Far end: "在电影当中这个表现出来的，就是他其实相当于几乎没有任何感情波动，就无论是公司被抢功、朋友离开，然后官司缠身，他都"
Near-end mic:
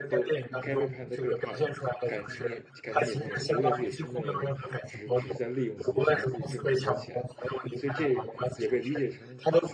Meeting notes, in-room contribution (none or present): present